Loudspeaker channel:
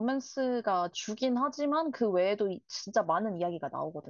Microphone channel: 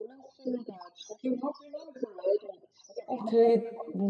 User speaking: Yes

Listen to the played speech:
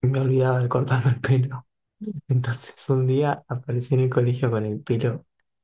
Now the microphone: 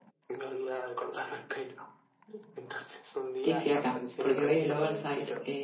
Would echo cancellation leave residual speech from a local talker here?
Yes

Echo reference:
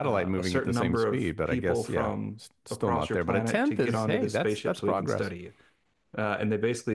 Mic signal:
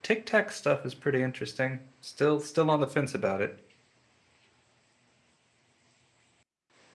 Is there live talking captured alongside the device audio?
Yes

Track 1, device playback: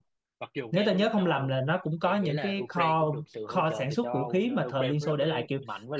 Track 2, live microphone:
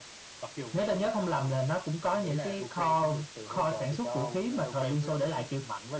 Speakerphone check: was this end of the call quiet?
Yes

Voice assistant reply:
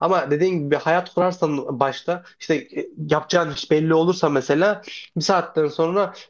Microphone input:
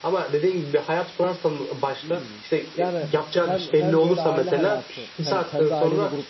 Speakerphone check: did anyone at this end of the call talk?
Yes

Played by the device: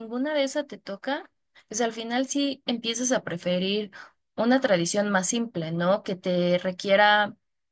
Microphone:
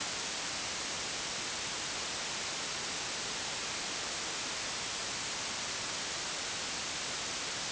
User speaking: No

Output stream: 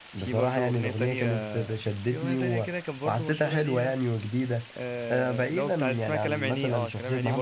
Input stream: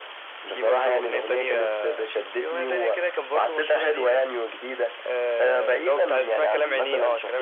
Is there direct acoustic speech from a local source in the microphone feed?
No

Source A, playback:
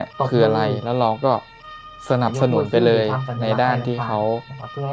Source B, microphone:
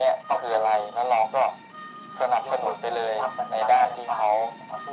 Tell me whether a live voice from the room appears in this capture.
No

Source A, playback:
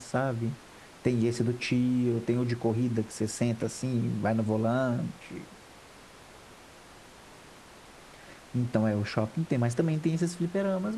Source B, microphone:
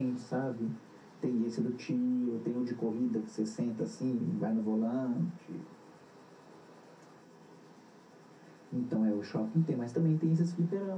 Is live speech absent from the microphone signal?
Yes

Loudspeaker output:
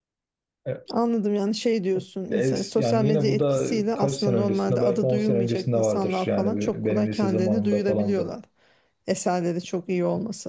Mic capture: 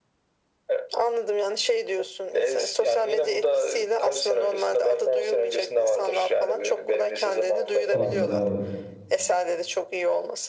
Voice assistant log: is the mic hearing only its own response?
No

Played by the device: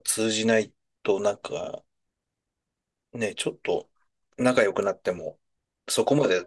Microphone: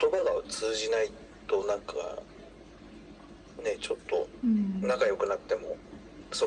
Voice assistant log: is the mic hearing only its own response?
No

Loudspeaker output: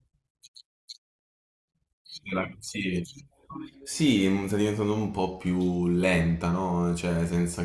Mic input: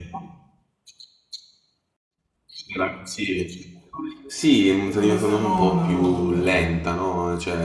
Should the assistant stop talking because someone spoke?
Yes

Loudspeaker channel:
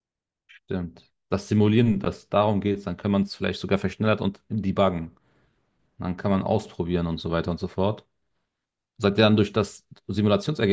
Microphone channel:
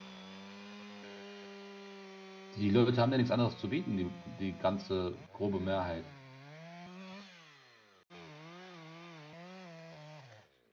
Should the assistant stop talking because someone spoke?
Yes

